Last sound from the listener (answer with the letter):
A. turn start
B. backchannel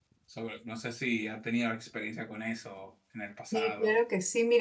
A